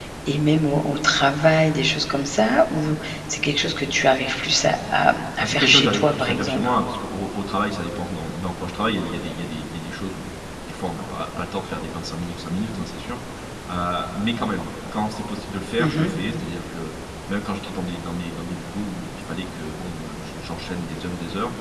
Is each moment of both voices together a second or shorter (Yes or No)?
No